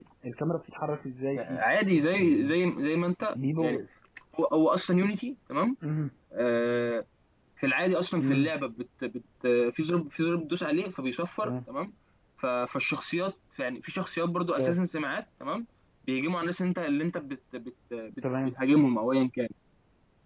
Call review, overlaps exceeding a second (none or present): none